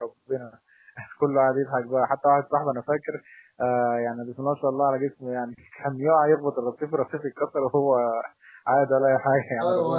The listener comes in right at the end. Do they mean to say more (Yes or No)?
Yes